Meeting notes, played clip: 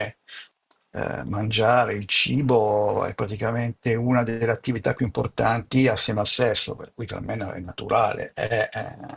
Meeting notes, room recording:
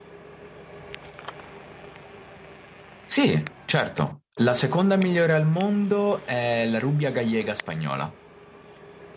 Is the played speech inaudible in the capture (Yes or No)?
Yes